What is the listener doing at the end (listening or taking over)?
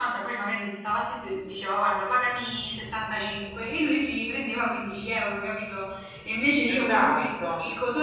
listening